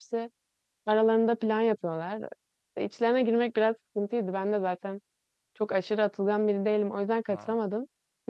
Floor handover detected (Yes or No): No